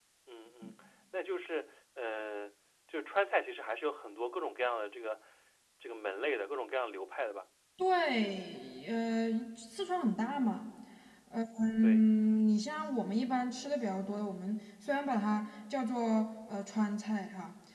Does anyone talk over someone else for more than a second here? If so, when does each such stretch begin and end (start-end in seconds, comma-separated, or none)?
none